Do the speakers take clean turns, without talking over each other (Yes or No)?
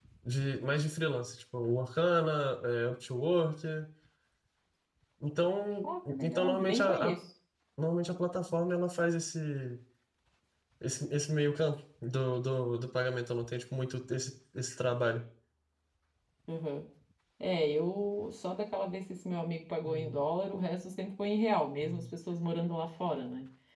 No